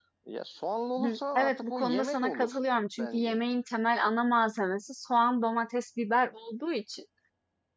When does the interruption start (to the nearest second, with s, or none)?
1 s